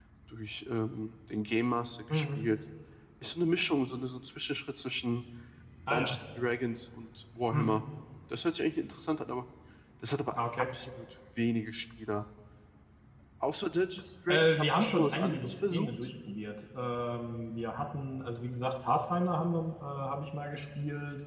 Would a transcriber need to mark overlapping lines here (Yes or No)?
Yes